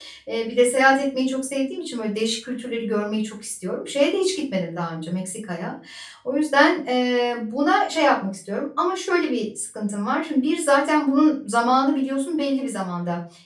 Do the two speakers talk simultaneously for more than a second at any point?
No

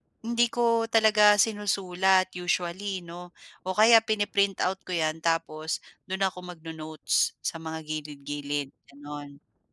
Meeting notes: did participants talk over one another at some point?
No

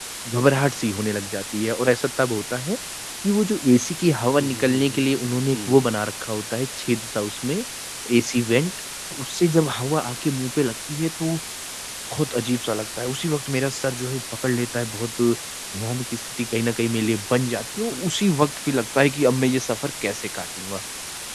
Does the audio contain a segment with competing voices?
Yes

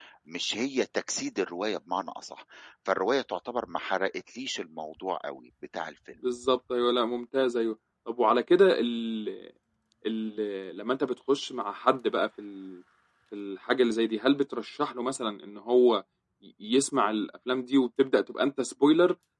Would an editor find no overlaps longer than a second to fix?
Yes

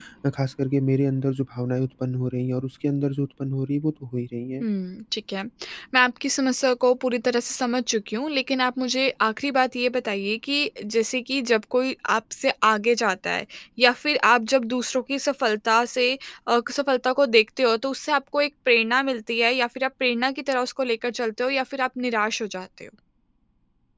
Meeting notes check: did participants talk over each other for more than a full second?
No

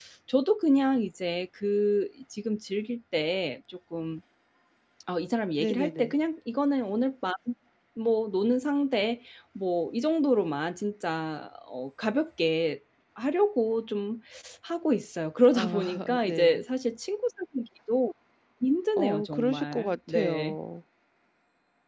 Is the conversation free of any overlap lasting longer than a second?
No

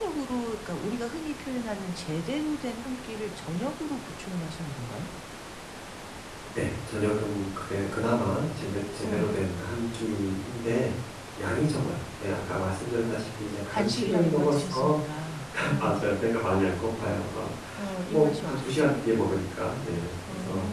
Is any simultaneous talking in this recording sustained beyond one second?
Yes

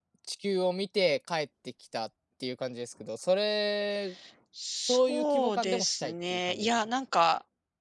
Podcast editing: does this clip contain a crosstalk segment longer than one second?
Yes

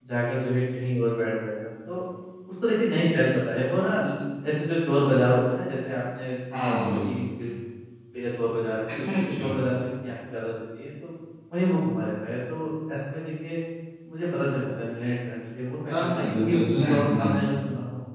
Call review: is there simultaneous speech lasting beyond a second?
Yes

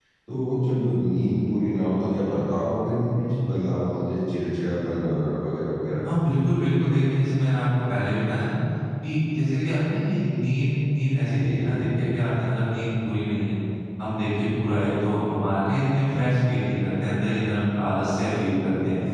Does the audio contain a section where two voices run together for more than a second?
No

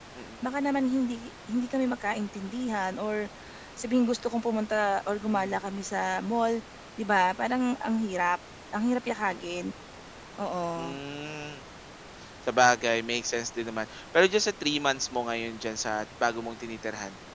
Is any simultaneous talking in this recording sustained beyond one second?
No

